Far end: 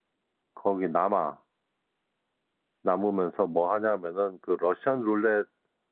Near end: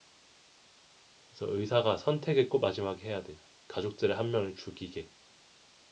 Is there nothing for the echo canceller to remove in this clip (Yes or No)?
Yes